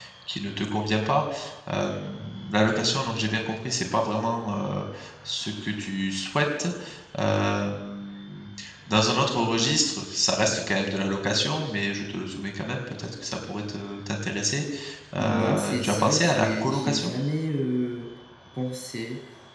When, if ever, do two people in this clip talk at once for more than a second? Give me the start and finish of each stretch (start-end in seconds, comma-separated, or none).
15.2-17.1